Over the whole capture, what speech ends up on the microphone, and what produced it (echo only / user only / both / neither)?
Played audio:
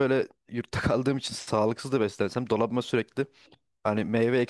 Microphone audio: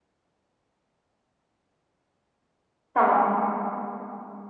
user only